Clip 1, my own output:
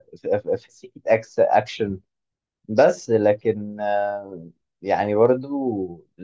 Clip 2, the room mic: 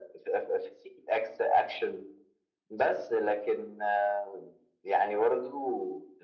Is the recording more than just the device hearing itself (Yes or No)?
No